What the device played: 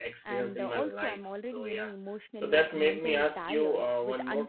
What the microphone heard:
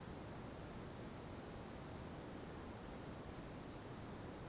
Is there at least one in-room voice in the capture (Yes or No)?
No